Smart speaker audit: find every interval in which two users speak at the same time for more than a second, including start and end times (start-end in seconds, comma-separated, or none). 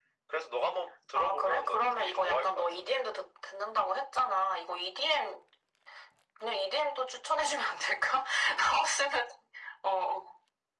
1.1-2.6